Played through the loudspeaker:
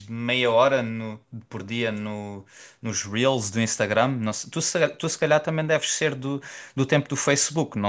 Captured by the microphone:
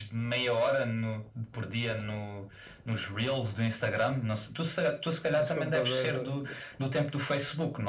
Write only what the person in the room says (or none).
dos computadores. do- do-